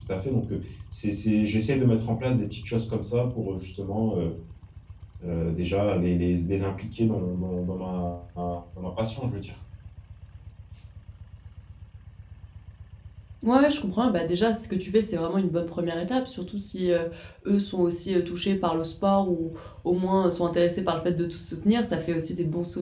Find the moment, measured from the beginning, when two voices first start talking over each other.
none

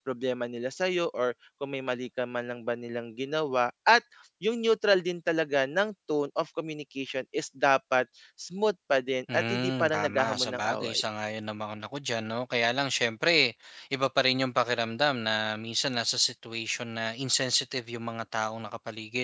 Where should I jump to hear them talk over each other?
9 s

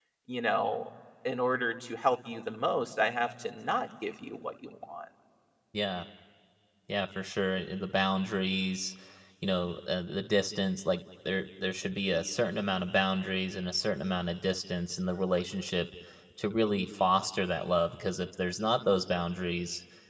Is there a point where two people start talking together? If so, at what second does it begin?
none

